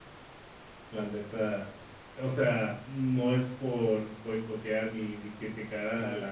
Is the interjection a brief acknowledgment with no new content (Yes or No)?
Yes